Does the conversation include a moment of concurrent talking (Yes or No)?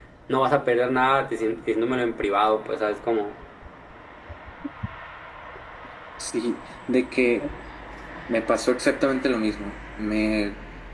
No